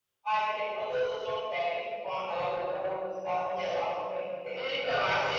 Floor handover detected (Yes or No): Yes